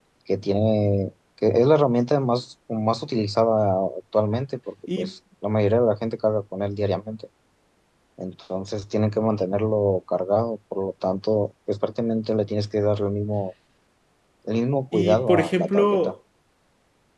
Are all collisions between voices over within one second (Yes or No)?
No